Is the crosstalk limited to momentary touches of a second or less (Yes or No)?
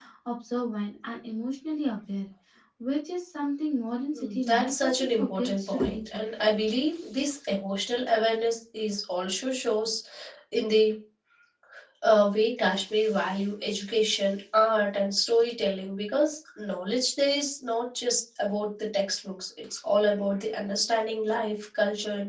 No